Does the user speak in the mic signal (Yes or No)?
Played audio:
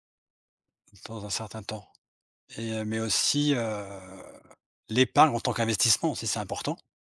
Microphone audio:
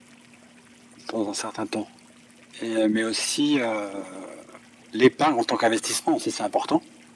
No